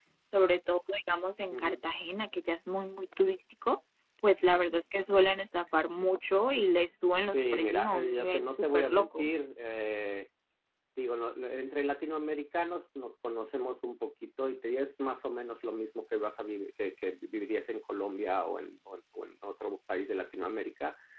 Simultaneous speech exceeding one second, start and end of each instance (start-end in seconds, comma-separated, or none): 7.2-9.3